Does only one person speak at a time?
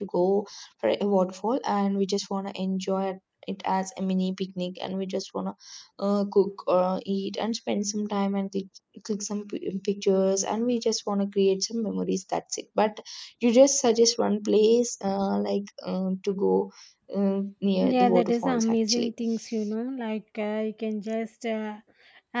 No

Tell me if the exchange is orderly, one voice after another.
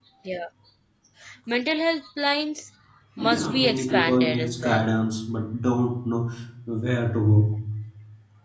No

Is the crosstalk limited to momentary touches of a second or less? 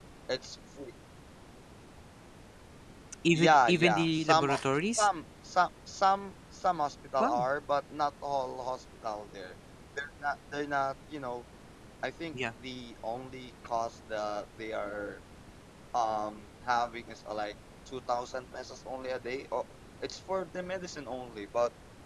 No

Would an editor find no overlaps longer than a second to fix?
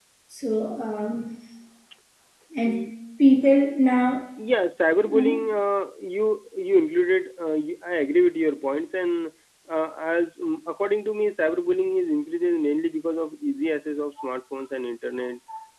Yes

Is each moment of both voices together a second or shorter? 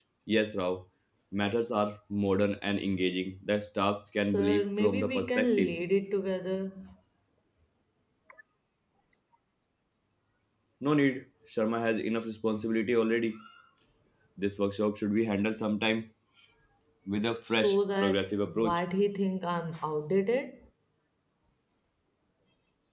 No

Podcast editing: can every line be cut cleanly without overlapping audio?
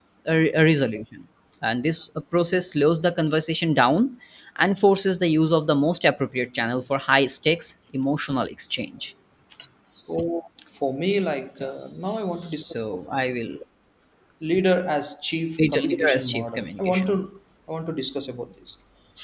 No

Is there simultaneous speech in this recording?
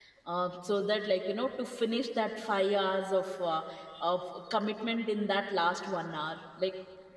No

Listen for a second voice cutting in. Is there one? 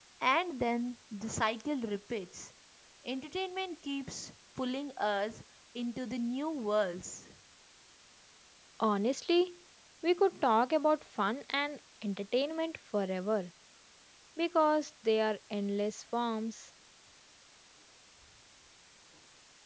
No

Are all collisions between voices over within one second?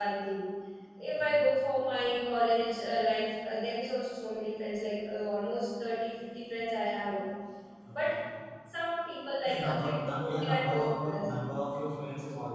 No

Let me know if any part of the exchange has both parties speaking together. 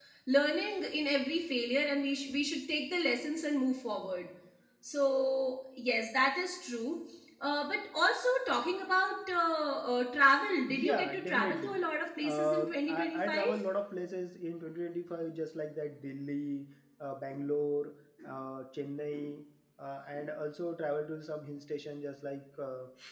Yes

